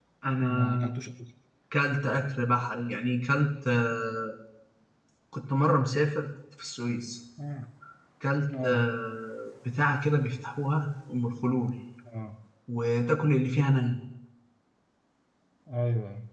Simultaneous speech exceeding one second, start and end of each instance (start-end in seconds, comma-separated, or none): none